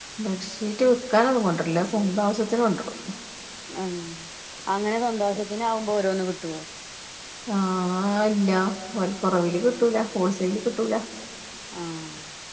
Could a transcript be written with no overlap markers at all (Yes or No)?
Yes